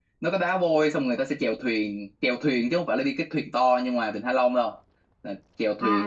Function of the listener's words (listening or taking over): taking over